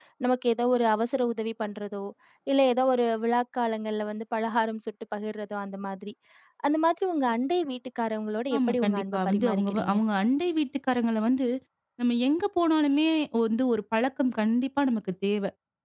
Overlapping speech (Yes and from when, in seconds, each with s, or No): Yes, from 8.5 s